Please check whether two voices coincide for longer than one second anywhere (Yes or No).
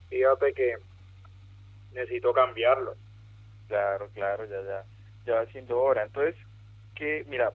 No